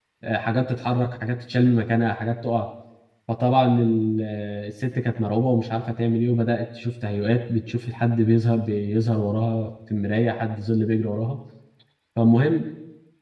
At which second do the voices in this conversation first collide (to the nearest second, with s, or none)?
none